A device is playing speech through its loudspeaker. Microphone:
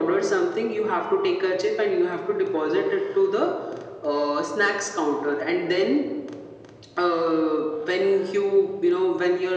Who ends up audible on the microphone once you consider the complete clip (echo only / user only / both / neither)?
echo only